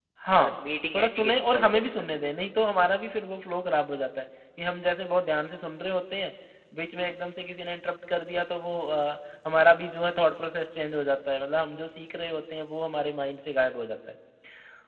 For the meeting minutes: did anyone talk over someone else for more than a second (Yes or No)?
Yes